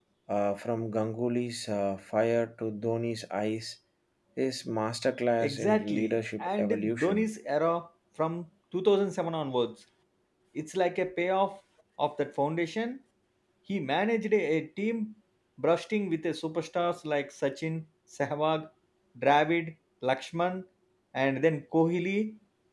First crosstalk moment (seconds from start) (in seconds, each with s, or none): 5.4 s